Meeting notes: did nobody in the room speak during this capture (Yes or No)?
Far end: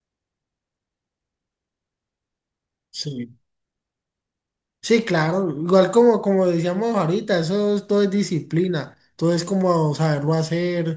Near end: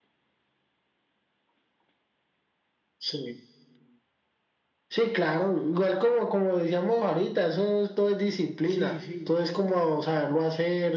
No